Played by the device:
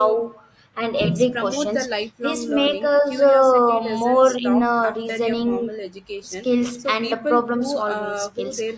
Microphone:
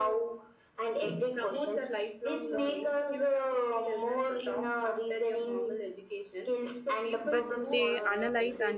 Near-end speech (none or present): present